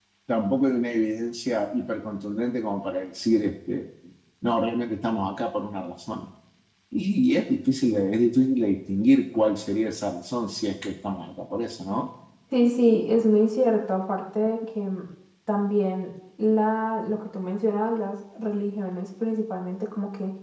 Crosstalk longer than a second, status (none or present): none